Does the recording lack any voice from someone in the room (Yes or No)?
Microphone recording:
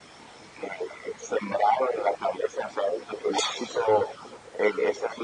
Yes